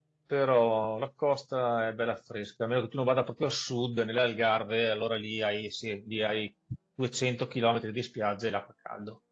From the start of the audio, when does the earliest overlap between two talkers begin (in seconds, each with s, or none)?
none